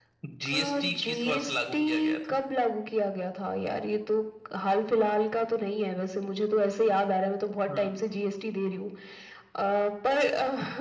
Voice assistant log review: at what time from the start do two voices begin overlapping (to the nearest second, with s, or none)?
1 s